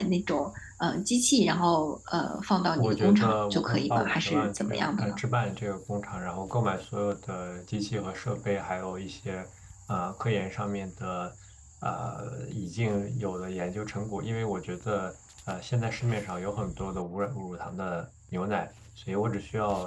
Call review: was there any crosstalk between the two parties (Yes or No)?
Yes